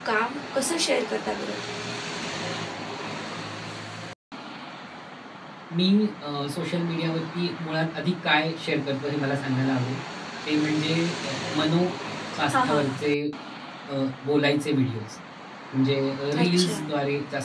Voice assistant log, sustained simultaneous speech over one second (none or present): none